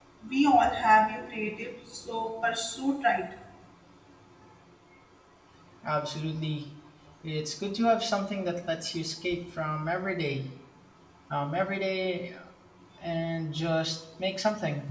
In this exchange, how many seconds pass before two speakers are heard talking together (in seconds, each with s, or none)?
none